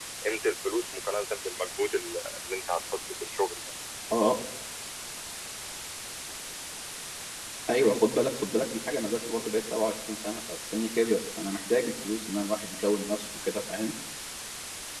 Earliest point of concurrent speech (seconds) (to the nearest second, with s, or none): none